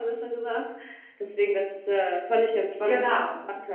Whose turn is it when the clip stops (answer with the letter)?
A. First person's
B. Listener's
A